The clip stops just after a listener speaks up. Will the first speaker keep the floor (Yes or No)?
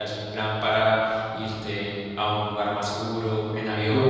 No